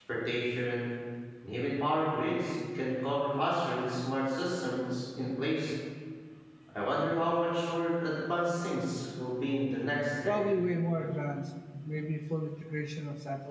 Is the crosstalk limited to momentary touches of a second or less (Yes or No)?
Yes